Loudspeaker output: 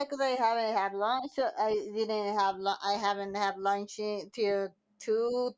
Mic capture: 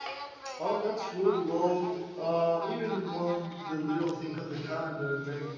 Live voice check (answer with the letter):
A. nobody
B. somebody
B